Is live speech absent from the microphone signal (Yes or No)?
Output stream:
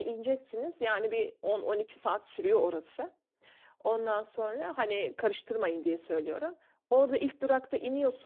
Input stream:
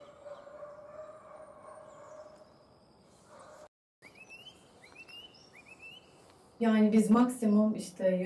No